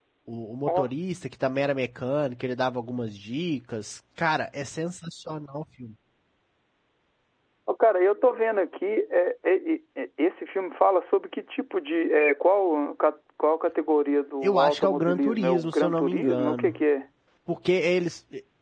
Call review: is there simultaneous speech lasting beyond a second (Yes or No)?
Yes